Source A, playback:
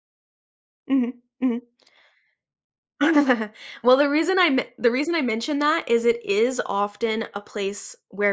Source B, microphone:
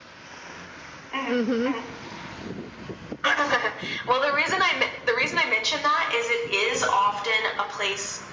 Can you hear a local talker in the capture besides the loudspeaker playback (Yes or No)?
Yes